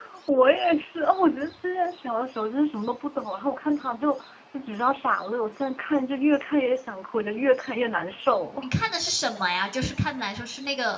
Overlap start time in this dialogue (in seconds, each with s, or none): none